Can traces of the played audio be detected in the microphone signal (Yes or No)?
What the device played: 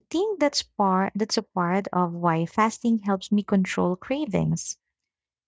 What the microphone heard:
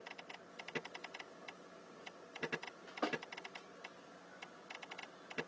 No